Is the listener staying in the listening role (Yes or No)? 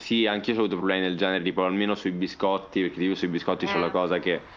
Yes